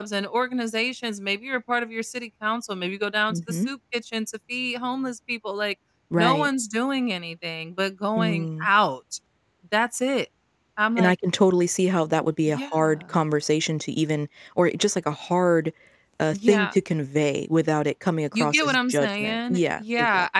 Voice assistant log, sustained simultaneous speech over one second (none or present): present